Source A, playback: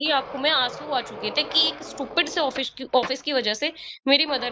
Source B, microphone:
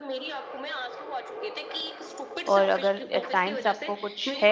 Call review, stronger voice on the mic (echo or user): user